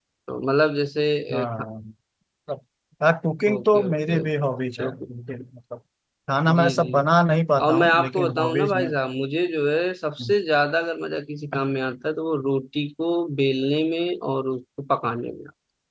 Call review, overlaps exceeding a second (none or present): present